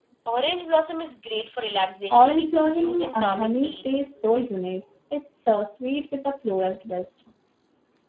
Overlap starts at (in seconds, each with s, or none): 2.1 s